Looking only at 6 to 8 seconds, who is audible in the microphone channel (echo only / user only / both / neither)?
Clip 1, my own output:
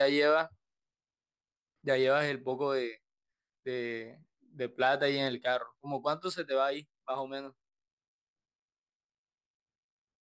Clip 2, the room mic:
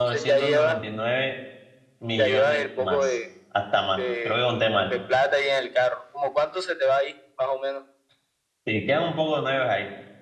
echo only